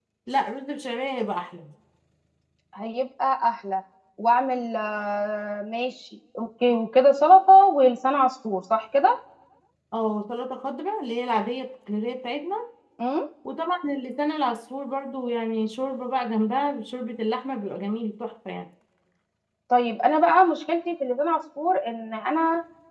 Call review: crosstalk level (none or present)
none